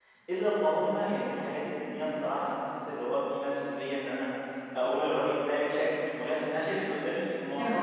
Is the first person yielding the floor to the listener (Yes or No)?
No